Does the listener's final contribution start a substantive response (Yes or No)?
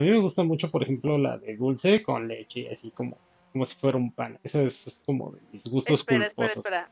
Yes